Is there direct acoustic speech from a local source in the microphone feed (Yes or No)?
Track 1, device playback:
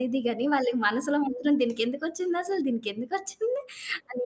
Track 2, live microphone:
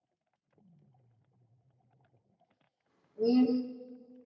Yes